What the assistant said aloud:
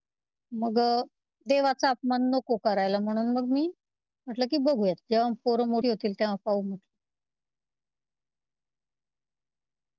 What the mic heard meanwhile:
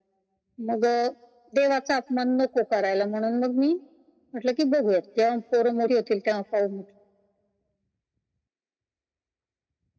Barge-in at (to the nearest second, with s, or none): none